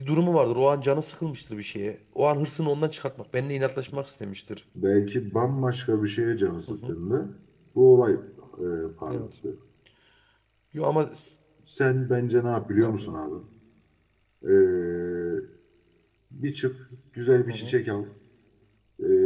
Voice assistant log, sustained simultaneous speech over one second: none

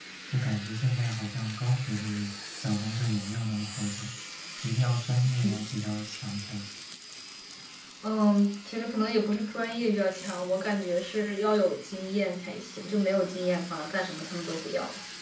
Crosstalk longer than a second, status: none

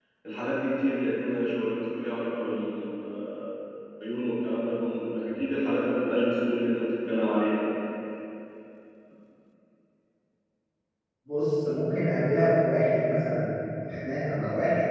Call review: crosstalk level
none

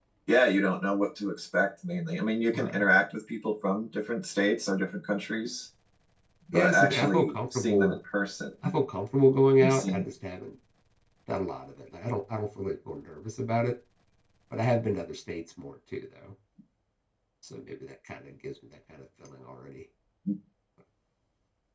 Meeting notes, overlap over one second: present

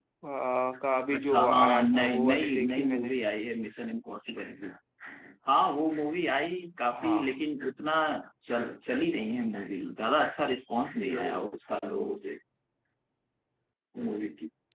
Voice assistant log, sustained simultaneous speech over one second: present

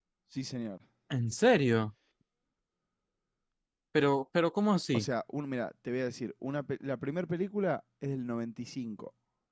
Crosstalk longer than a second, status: none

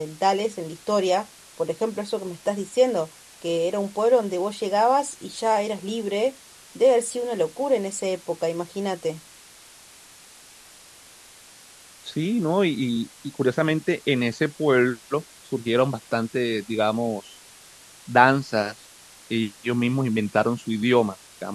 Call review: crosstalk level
none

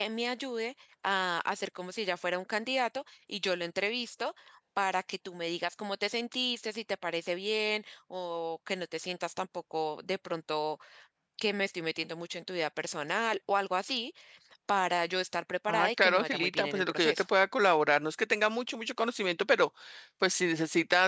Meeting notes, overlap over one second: present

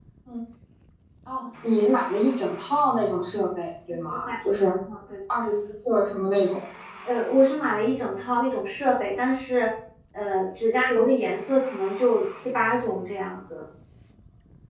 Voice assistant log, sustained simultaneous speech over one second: none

